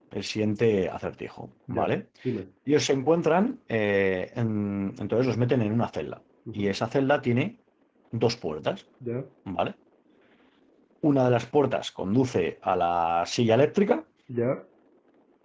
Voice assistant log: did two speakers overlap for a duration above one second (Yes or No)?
No